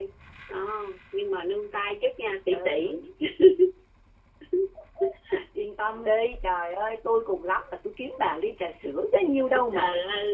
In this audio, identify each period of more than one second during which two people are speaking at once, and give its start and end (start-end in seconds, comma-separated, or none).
none